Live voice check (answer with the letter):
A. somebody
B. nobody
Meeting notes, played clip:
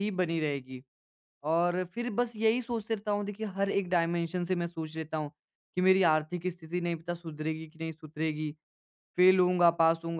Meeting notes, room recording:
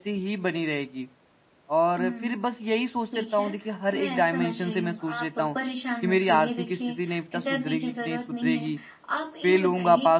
A